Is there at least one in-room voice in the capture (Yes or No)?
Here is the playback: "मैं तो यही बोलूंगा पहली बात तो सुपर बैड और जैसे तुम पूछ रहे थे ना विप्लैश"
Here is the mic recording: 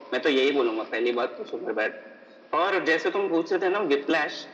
No